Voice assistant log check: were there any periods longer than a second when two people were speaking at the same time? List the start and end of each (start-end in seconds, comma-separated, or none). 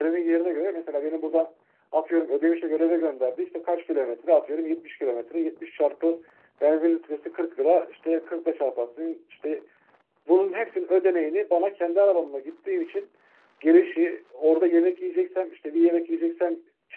none